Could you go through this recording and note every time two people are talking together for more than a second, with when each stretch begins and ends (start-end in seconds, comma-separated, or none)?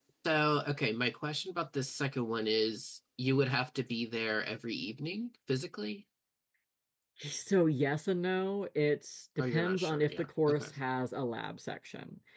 9.4-10.7